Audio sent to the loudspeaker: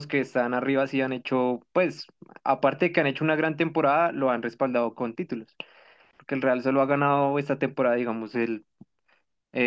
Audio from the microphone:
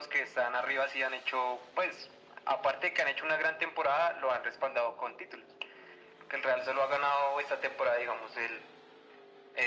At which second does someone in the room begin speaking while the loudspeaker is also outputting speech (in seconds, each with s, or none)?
none